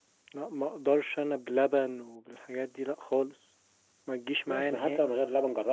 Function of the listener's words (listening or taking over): taking over